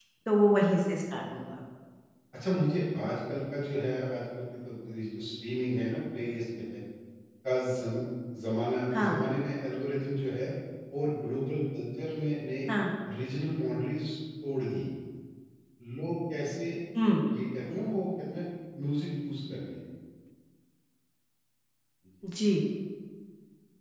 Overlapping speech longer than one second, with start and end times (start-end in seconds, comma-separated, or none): none